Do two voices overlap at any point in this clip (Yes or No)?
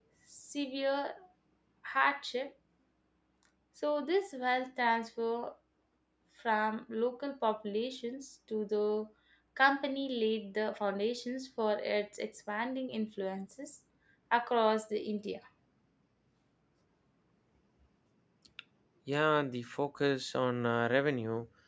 No